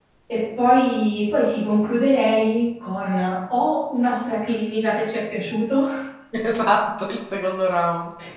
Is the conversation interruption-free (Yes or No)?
Yes